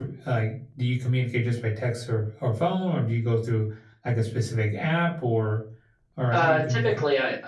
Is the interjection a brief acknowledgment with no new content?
No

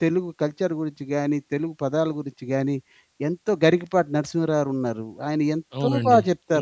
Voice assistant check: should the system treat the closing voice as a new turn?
Yes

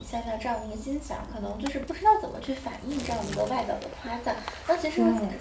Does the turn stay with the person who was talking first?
Yes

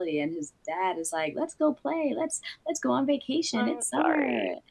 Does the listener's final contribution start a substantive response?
No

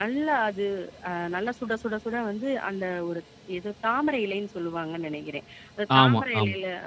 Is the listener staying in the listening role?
Yes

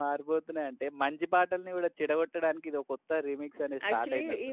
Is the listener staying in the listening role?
No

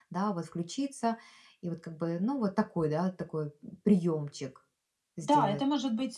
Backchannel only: No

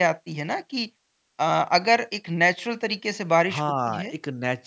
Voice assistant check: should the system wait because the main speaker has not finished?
No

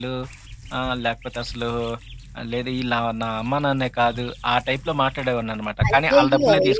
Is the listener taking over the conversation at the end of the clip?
Yes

